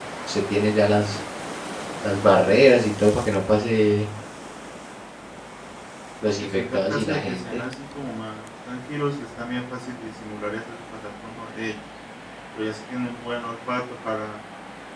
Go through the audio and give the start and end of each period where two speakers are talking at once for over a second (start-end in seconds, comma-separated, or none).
6.4-7.6